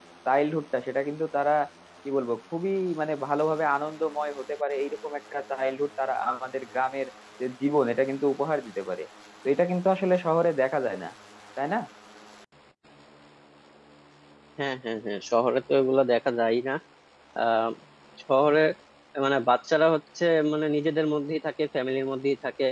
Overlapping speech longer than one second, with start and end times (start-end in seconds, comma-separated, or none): none